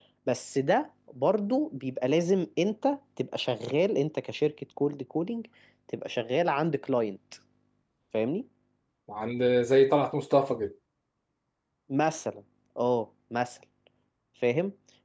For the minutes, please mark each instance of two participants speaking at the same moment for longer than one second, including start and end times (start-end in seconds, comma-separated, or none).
none